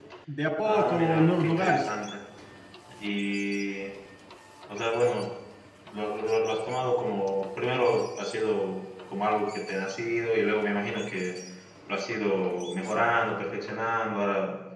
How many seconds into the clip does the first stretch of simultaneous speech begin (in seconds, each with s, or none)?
0.6 s